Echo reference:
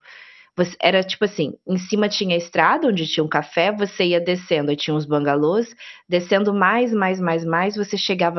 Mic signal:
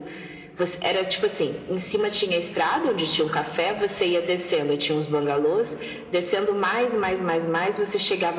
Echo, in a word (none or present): present